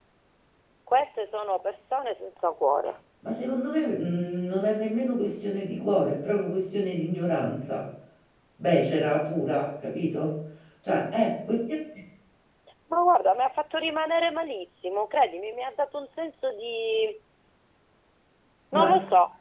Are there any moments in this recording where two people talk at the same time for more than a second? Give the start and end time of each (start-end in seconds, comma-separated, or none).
none